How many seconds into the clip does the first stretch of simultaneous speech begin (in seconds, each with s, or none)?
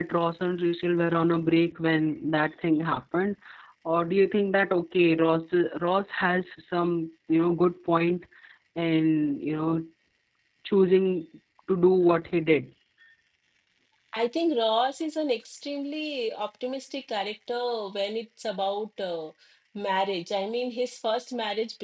none